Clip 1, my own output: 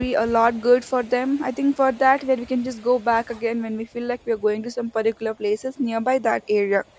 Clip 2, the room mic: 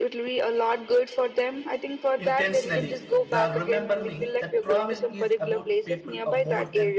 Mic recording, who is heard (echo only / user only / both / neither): both